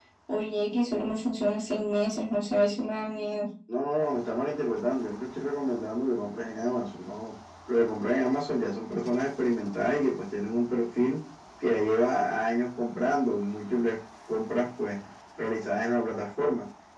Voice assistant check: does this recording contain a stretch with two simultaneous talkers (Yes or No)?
No